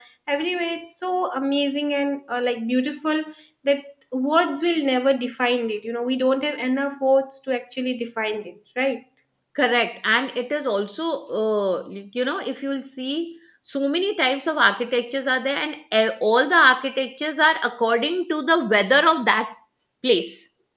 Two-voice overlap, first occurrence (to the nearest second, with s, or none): none